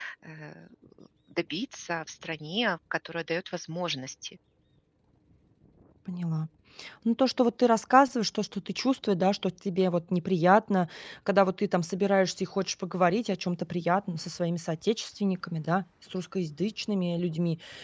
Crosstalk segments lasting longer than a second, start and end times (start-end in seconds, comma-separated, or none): none